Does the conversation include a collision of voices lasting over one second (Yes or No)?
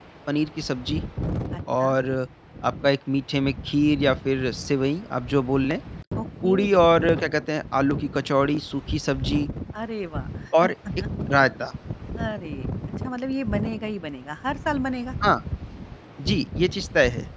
No